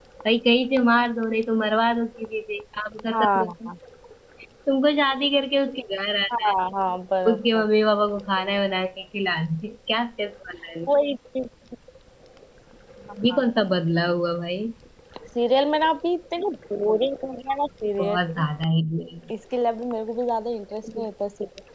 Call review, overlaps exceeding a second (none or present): none